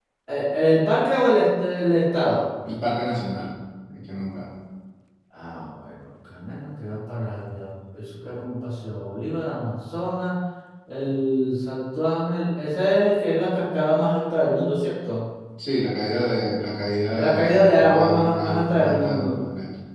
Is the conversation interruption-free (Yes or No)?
No